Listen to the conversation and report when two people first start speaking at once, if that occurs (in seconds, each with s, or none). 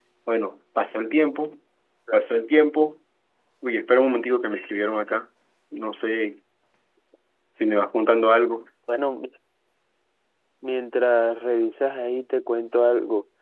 none